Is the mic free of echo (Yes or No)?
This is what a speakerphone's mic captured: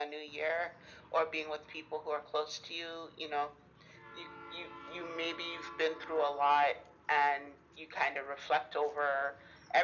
No